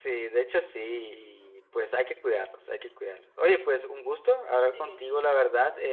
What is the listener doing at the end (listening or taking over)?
listening